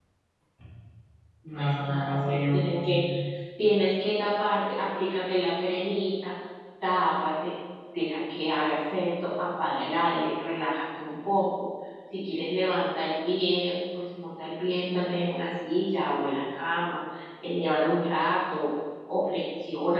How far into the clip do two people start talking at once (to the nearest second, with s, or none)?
2 s